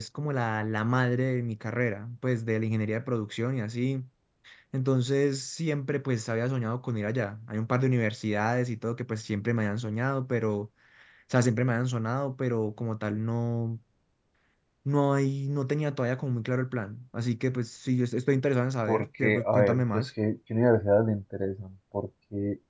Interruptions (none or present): present